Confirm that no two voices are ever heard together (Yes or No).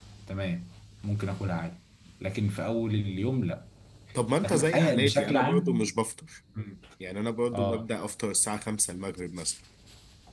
No